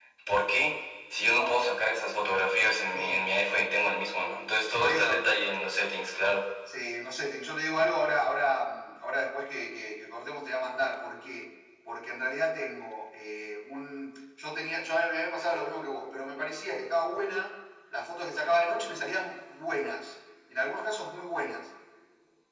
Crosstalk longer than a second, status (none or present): none